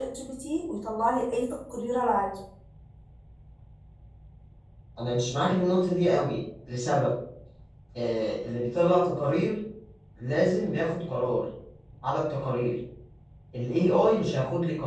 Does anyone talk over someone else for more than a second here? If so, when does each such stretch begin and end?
none

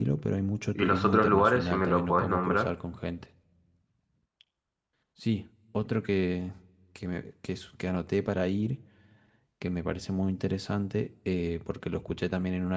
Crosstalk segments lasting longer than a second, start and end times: 0.8-2.7

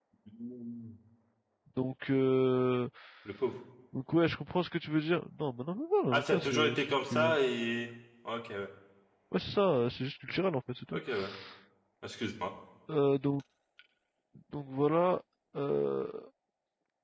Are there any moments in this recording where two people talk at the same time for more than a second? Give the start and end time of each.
6.1-7.4

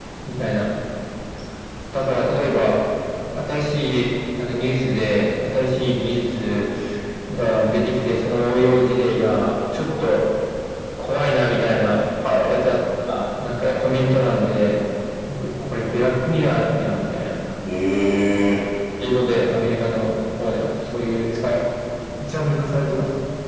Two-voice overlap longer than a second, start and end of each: none

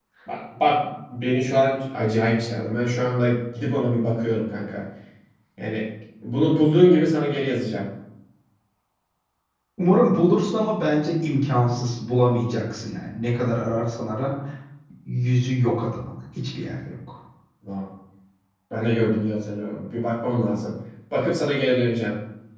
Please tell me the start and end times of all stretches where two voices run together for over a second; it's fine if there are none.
none

